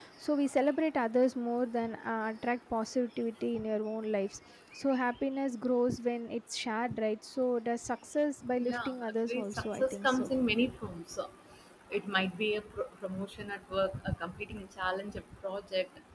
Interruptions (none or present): present